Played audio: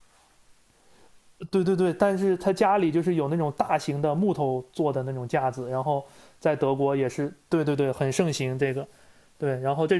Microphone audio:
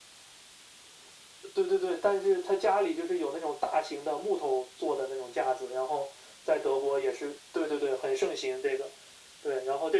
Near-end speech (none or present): none